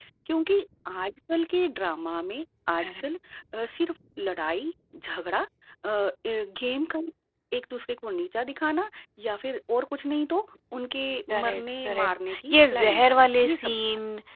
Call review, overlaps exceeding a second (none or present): present